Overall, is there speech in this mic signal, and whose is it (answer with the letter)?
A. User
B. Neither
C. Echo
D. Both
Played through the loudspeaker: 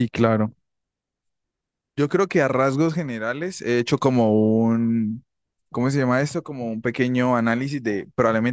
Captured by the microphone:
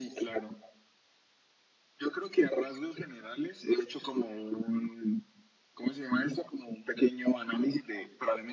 C